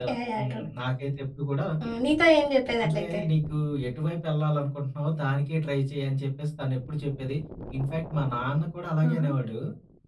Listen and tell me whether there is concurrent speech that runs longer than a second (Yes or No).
No